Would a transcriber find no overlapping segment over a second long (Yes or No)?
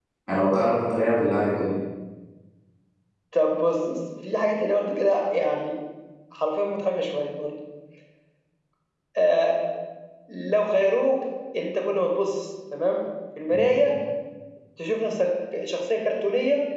Yes